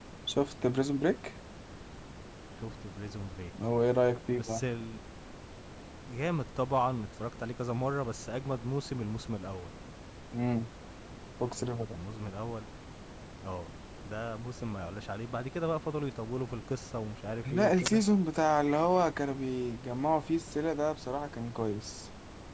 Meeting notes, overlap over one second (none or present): none